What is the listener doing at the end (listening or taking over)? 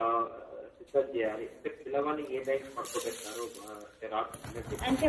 taking over